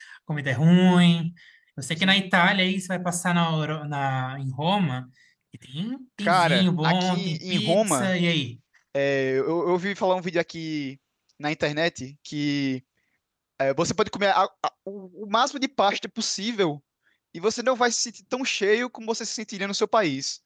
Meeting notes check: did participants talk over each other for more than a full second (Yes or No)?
Yes